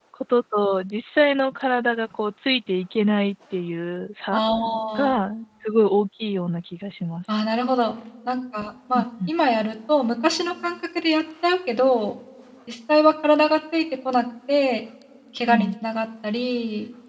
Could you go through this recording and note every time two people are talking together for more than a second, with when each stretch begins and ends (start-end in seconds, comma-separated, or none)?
none